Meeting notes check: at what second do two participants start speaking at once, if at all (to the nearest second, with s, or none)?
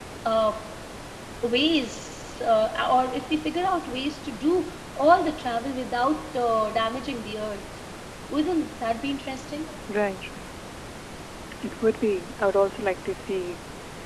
none